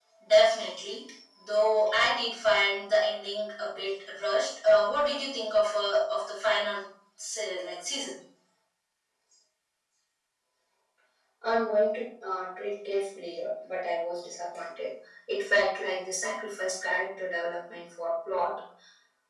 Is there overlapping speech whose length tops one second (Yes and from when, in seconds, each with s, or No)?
No